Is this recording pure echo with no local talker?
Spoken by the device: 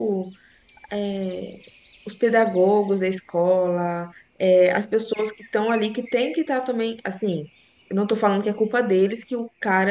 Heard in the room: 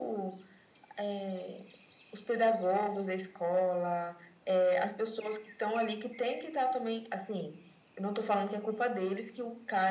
Yes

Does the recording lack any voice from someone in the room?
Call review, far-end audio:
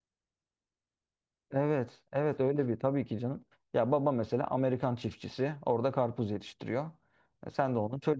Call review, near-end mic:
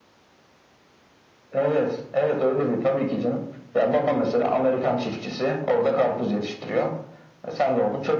Yes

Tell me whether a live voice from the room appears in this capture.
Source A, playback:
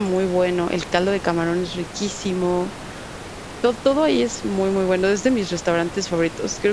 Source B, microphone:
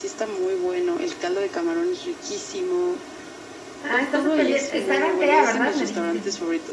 Yes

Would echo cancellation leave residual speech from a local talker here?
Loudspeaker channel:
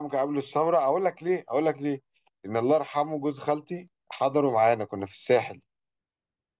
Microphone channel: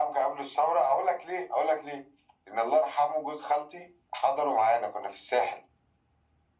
No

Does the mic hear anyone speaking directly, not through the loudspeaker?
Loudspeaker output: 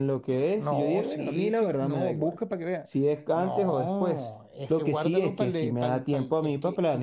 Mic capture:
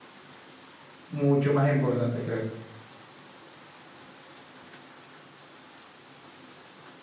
Yes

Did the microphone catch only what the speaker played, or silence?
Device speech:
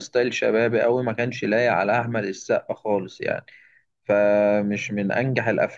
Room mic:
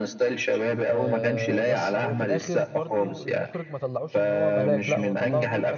No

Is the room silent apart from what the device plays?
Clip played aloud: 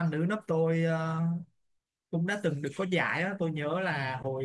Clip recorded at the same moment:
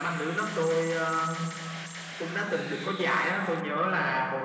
Yes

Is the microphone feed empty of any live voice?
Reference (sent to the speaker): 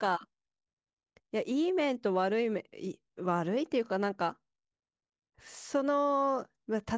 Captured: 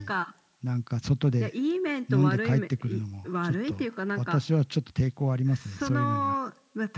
No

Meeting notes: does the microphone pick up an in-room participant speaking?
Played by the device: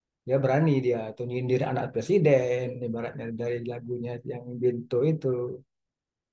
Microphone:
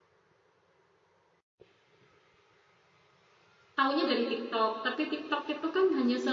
Yes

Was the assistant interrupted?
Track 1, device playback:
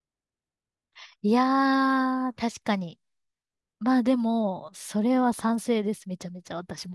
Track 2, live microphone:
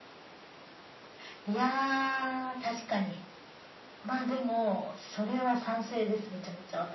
No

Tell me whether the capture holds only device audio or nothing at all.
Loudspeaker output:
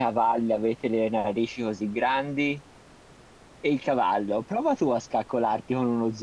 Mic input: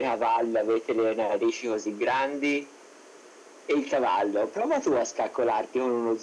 Yes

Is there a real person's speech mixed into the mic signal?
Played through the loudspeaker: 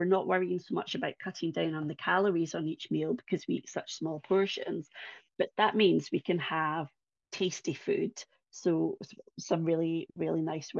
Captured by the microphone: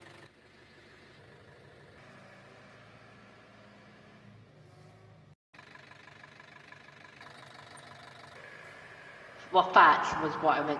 Yes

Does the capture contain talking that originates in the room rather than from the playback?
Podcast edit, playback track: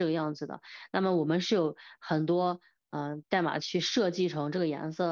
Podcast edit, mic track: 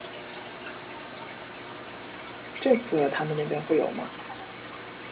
Yes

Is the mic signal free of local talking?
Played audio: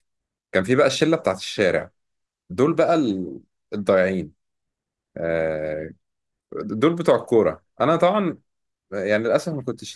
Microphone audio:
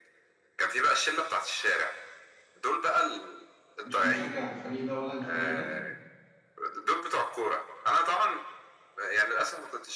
No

